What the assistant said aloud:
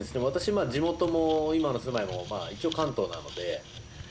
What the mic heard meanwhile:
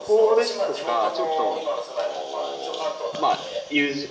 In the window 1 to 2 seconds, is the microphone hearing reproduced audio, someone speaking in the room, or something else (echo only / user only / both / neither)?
both